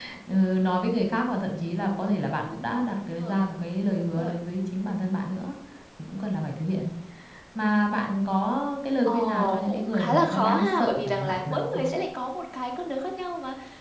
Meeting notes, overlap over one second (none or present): present